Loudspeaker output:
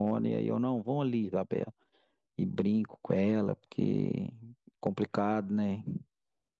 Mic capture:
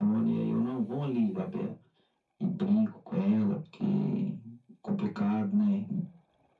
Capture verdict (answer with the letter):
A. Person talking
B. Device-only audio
B